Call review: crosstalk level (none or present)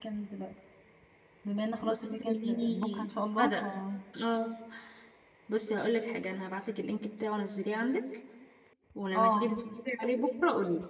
present